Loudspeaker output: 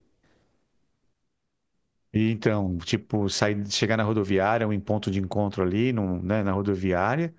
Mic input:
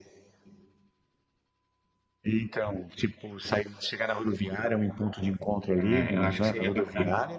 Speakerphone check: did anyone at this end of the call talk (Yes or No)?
Yes